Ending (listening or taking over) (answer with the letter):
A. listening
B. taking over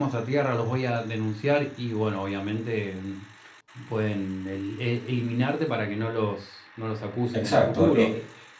B